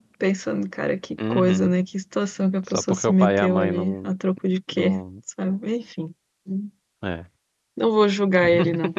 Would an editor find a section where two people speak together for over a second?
Yes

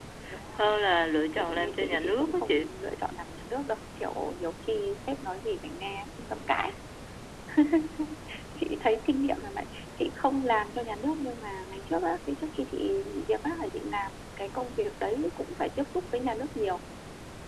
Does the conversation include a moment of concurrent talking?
Yes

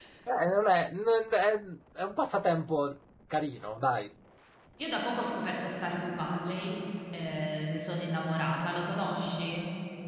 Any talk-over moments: No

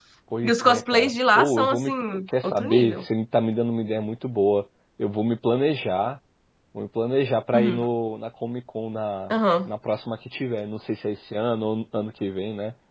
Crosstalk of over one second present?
Yes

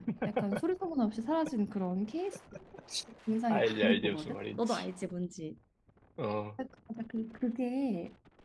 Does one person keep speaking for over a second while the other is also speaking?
Yes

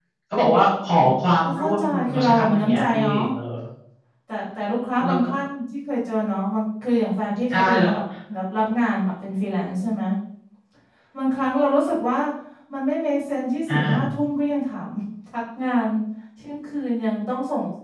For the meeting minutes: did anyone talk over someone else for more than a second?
Yes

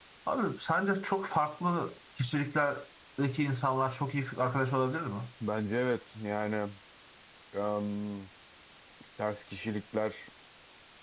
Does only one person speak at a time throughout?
Yes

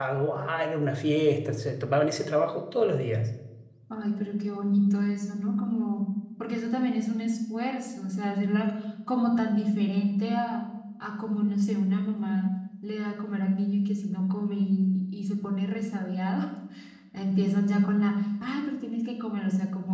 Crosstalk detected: No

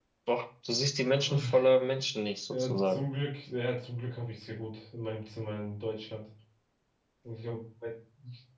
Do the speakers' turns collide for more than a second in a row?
No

